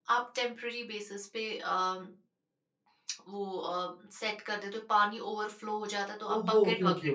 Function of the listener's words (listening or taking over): taking over